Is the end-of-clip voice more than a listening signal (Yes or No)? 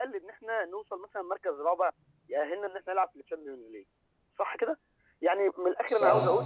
No